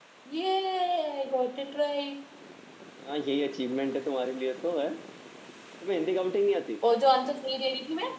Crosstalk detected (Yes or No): No